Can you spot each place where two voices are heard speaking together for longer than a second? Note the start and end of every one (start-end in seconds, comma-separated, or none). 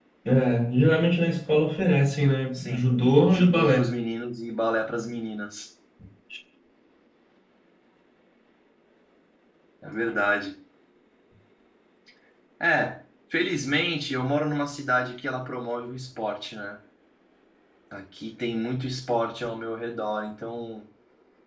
2.5-3.9